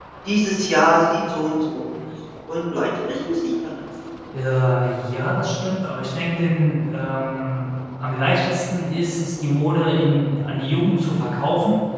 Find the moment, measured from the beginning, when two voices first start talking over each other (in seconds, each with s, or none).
none